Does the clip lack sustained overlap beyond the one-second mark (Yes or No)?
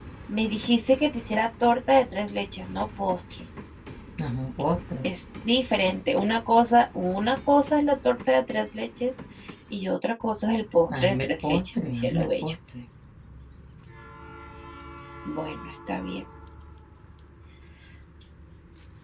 No